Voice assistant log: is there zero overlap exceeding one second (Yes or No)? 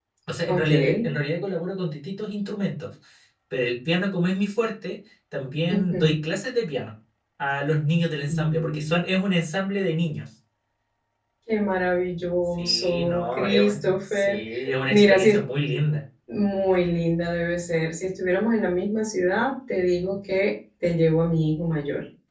No